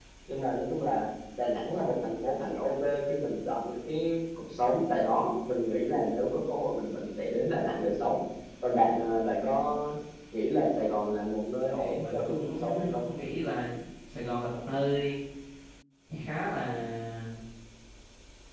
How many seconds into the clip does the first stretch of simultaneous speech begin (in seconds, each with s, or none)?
11.7 s